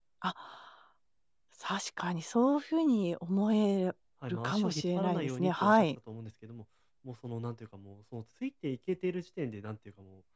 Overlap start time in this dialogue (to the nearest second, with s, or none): 4 s